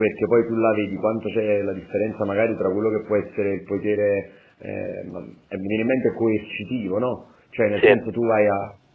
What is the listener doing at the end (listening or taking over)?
listening